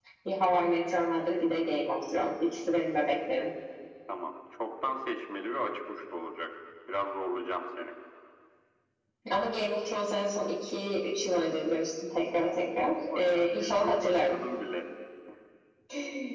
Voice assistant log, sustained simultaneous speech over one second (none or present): present